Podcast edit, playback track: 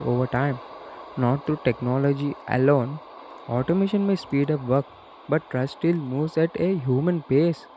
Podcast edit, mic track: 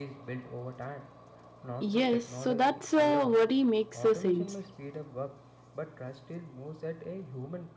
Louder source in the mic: user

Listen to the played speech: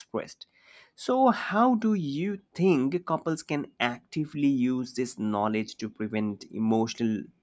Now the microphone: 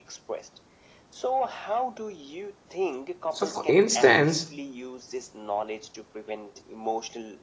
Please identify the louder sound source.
user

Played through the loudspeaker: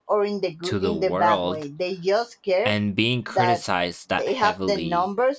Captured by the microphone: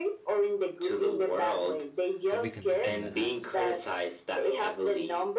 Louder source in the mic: echo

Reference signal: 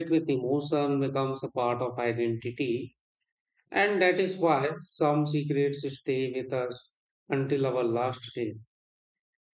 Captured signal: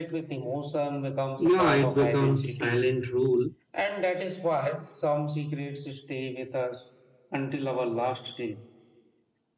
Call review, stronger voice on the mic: user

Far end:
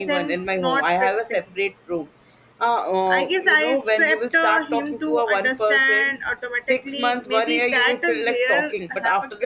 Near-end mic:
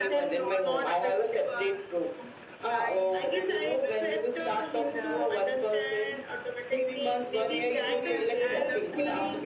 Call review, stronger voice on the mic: echo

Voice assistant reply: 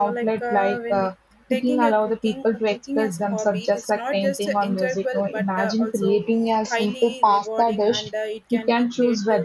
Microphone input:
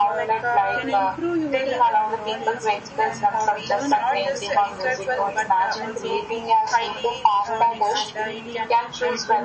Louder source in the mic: echo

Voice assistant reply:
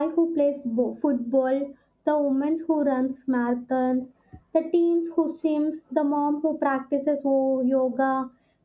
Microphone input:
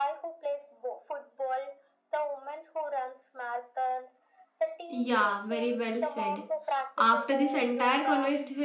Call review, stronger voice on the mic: user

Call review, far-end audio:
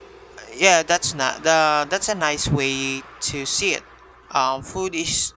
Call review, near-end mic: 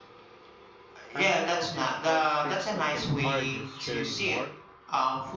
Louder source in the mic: echo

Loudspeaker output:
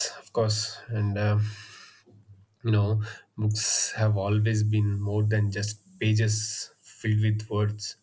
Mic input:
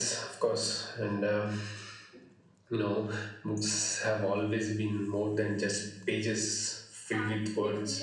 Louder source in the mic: echo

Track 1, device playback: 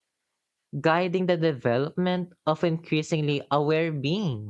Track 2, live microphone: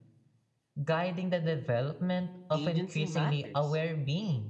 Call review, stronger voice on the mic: echo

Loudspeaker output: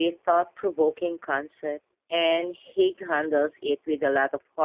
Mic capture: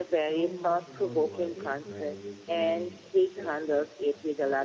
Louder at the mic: echo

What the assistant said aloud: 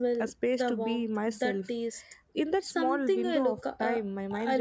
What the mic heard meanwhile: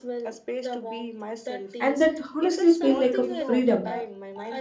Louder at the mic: user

